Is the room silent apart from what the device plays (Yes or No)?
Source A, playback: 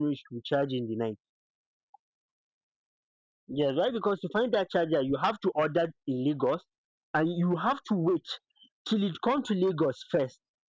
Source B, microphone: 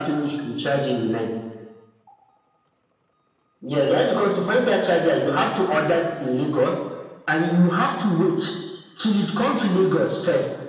Yes